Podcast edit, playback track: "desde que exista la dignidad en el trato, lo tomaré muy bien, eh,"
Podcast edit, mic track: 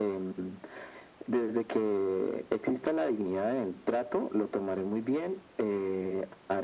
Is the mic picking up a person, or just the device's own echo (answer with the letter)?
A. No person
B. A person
A